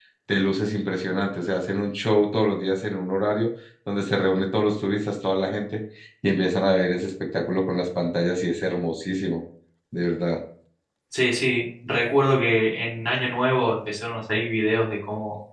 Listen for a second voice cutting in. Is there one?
No

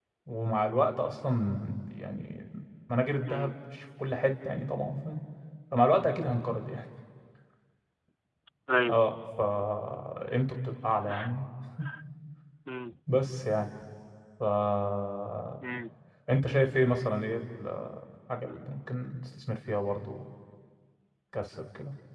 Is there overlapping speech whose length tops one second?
No

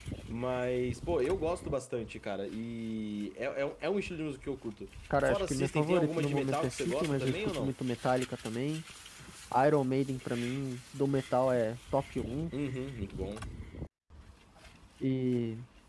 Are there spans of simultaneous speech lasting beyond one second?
Yes, from 5.1 s

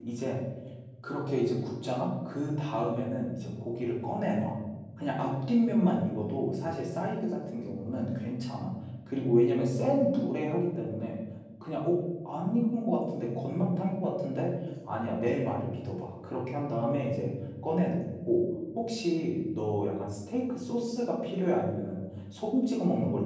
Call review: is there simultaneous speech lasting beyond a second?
No

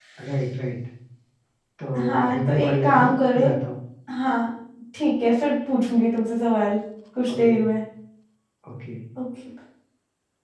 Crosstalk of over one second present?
Yes, from 2.2 s

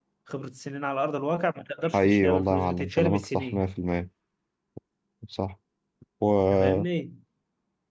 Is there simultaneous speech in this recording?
Yes, from 1.9 s

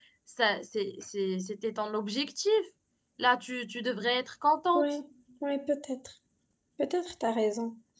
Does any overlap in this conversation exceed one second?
No

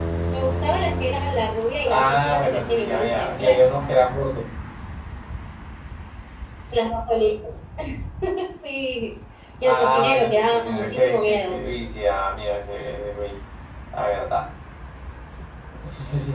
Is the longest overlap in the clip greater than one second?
Yes, from 1.8 s

